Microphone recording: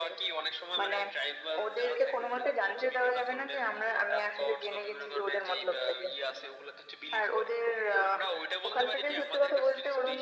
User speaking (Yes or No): No